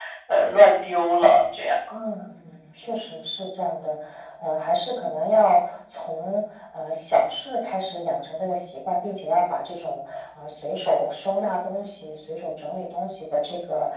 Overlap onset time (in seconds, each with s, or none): none